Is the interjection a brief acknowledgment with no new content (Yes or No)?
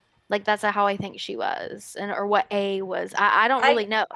No